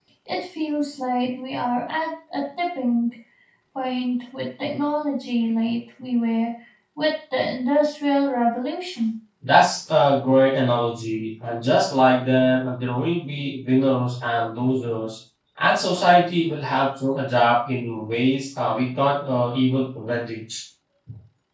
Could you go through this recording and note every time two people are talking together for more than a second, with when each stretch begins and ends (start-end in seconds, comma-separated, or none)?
none